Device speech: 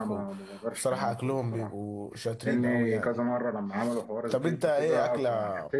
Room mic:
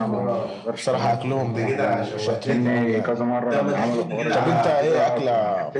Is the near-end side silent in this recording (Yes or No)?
No